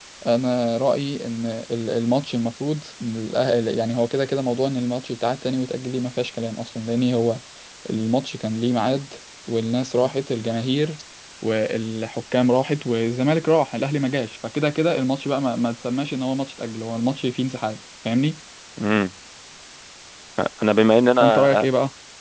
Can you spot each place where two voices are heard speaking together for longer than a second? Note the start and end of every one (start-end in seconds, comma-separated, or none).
none